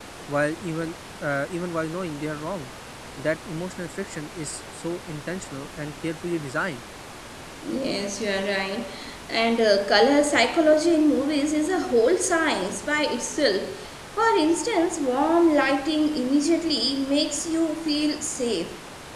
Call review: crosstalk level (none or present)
none